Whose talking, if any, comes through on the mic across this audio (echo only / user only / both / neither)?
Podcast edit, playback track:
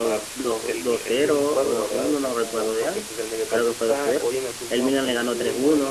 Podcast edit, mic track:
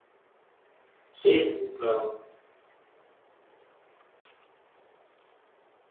user only